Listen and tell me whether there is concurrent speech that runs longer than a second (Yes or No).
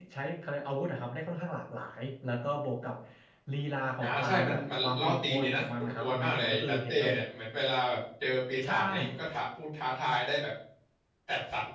Yes